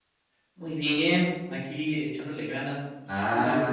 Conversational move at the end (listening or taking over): taking over